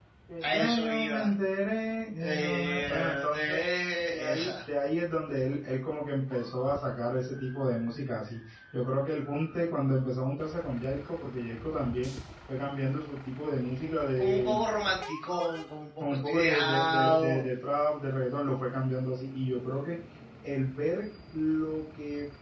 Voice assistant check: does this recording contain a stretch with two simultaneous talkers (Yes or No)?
Yes